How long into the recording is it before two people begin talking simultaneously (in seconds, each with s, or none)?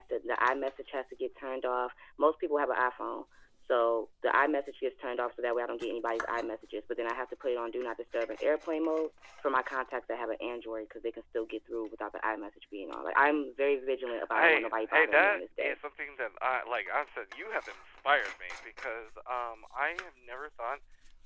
14.3 s